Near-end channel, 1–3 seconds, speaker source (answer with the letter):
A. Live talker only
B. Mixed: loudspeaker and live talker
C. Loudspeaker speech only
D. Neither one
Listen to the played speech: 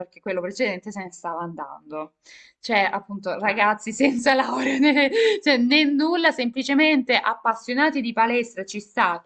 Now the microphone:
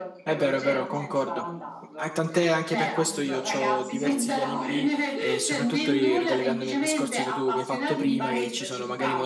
B